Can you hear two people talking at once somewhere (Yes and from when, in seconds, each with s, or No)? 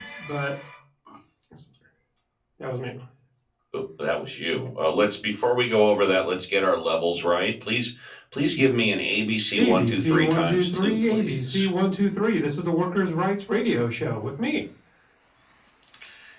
Yes, from 9.6 s